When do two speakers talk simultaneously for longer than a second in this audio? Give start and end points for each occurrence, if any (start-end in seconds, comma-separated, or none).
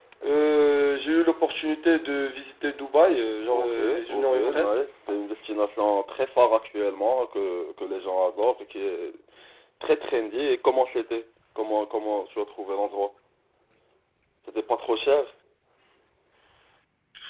3.5-4.7